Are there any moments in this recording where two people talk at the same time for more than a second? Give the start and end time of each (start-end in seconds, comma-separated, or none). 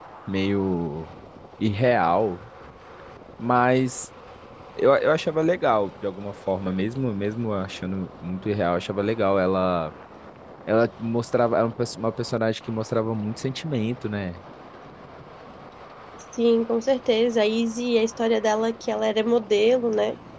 none